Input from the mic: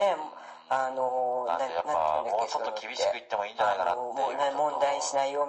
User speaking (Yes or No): No